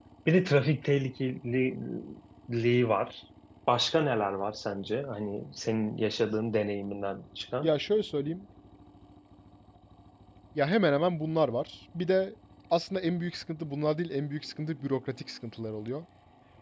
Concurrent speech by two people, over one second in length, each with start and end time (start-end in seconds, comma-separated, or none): none